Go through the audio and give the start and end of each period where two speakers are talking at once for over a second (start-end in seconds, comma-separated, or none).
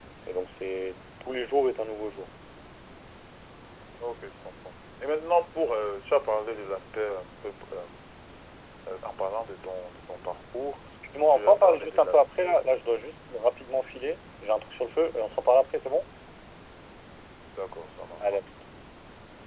11.3-12.5